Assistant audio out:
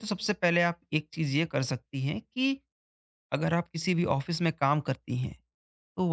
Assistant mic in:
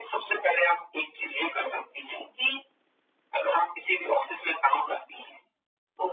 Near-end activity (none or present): none